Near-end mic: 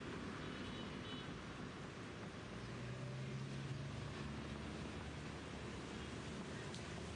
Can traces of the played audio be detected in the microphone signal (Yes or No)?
No